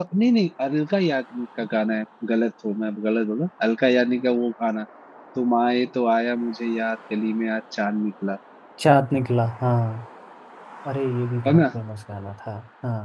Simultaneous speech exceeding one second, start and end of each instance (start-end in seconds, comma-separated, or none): none